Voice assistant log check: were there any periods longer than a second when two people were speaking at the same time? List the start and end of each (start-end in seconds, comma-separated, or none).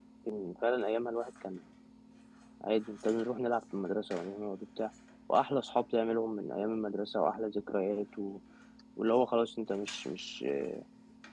none